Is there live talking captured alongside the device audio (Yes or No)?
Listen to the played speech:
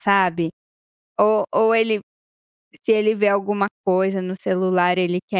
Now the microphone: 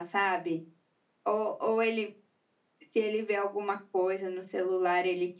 No